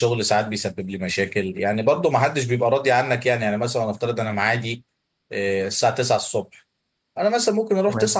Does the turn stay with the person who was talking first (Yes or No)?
Yes